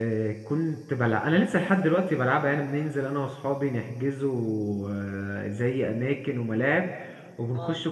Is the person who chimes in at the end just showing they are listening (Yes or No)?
Yes